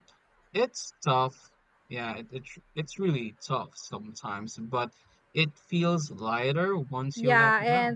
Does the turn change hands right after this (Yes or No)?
Yes